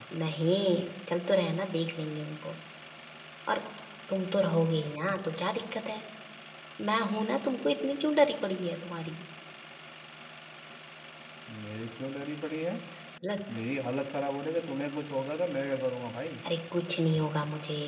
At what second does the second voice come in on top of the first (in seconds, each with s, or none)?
none